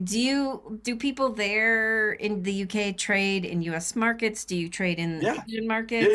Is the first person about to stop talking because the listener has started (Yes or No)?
Yes